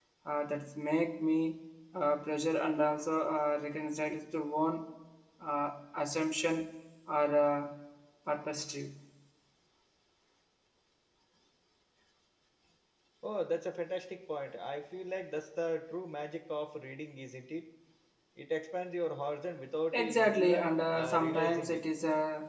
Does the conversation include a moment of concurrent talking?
Yes, from 19.9 s

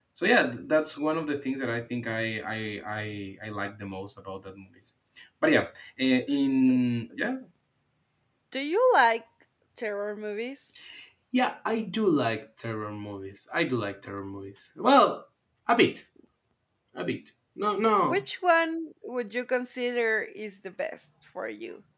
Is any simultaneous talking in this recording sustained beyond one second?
No

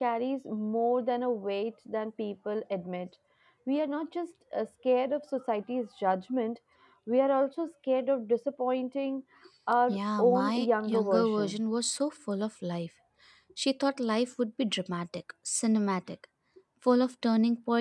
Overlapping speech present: Yes, from 9.9 s

